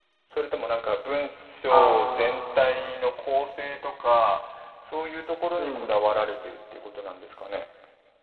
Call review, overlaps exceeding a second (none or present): present